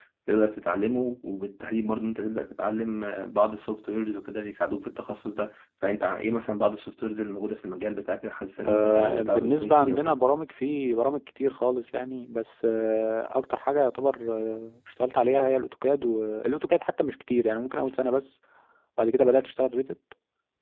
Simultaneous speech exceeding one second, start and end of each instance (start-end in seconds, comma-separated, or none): 8.7-10.2